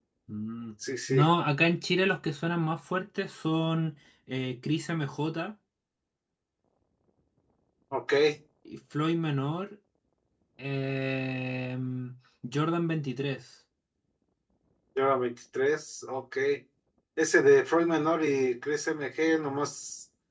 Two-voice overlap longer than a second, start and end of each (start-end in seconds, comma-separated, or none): none